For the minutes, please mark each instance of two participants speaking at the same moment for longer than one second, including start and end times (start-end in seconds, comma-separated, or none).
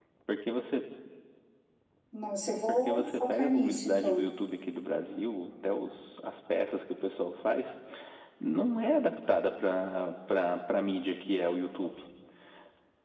2.9-4.3